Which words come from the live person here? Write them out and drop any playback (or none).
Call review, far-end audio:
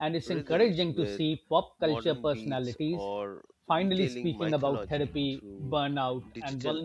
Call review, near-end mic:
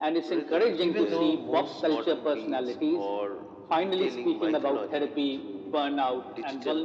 even though most